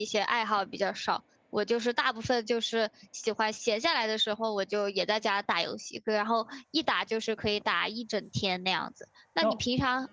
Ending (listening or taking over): listening